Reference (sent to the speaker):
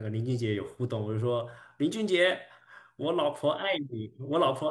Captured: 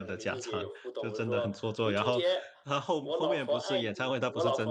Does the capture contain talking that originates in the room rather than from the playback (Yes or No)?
Yes